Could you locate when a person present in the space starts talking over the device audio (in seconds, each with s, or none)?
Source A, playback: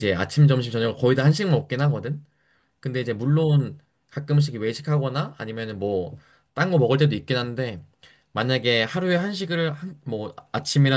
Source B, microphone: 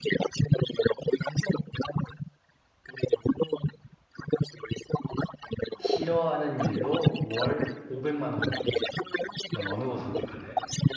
5.8 s